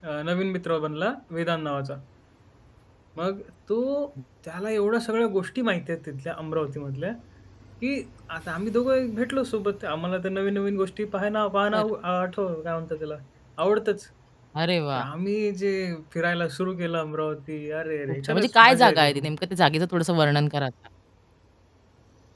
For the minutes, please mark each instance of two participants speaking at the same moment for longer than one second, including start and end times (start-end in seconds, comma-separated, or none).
18.1-19.3